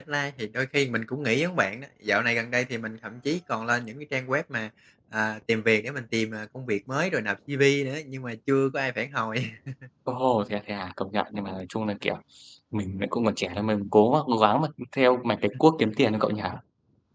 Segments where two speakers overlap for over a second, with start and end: none

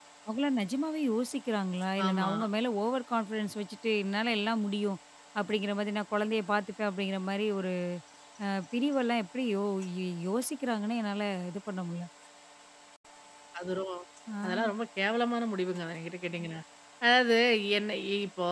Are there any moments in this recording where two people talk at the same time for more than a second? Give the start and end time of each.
none

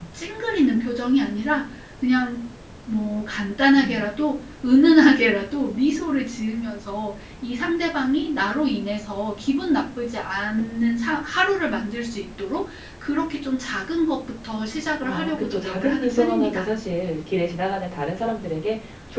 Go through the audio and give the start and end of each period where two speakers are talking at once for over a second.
15.0-16.6

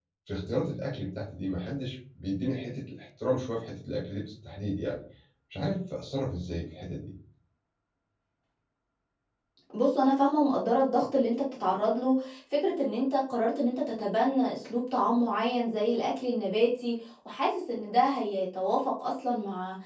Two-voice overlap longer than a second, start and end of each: none

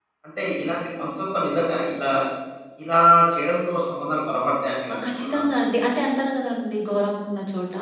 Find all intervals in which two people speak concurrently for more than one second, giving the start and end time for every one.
none

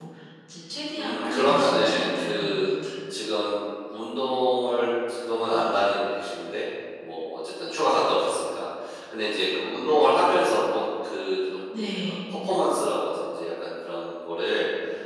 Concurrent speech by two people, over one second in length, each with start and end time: 0.9-2.7

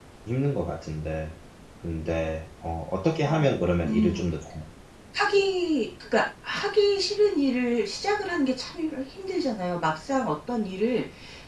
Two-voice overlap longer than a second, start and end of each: none

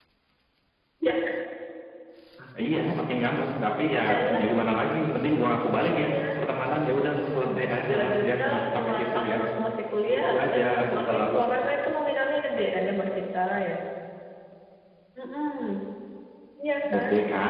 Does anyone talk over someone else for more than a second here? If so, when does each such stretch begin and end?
7.9-9.3, 10.1-11.4

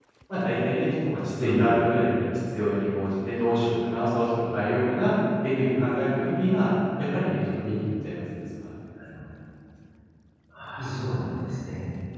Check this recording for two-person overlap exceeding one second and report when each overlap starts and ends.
none

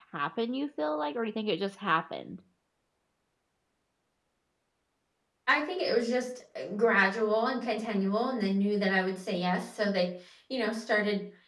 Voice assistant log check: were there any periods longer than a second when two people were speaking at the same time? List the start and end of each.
none

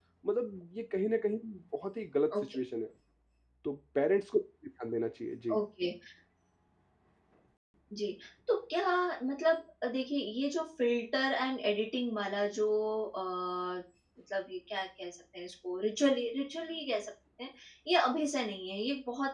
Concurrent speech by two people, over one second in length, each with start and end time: none

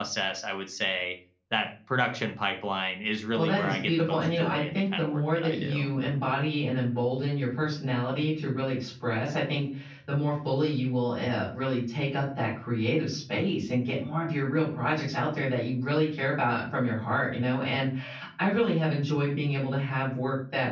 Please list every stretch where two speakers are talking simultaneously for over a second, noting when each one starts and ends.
3.4-5.9

